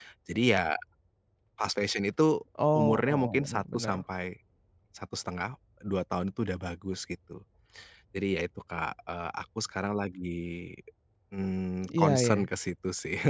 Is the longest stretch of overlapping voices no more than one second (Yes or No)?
No